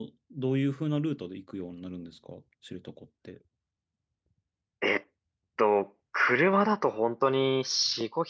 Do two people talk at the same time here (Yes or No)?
No